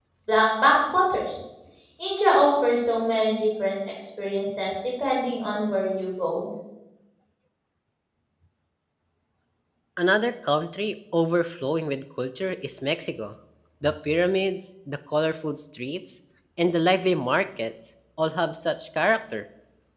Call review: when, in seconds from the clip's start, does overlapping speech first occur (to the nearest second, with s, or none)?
none